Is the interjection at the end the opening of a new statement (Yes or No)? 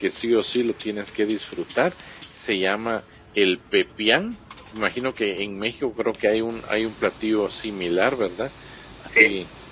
No